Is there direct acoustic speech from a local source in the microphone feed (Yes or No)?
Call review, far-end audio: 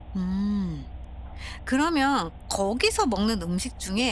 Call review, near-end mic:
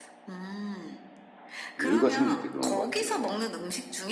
Yes